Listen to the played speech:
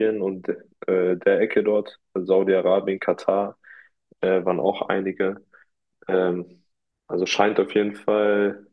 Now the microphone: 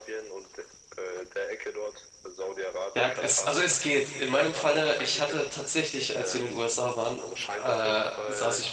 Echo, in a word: present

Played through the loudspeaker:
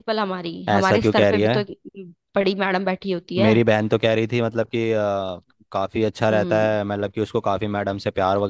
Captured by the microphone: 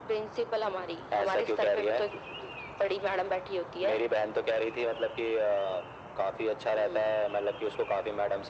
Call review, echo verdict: present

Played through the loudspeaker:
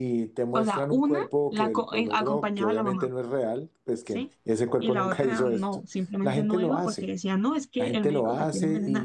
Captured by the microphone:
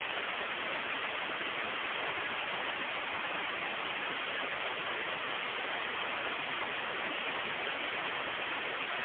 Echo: none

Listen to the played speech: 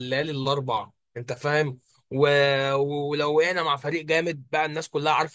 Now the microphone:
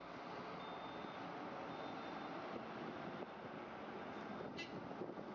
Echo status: none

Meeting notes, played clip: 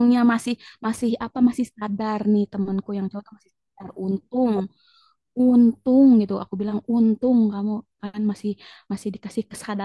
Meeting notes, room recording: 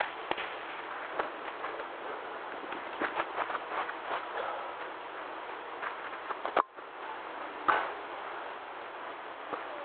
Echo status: none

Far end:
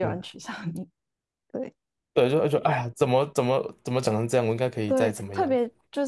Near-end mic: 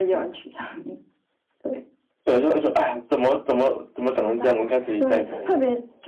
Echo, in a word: present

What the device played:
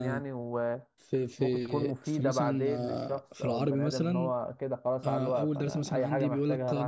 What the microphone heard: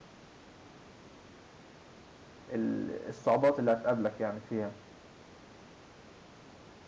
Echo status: none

